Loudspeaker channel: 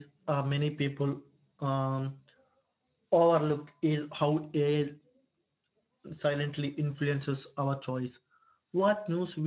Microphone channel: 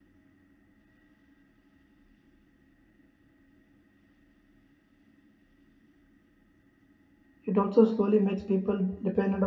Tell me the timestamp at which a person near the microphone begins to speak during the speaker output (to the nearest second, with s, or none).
7 s